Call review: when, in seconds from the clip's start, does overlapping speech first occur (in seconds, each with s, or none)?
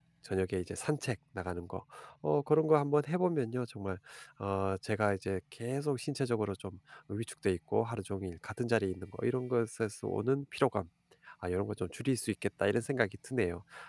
none